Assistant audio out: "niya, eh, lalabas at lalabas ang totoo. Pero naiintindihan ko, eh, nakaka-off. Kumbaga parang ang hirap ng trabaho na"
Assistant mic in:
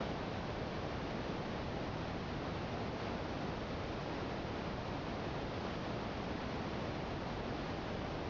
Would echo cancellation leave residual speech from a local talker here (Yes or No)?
No